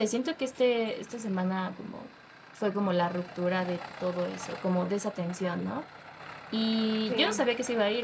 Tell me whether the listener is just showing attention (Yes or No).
Yes